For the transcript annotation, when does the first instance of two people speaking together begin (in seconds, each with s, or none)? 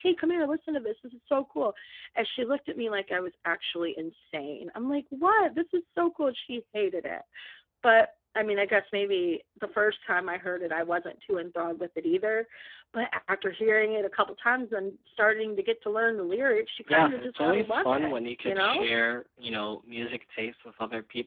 16.9 s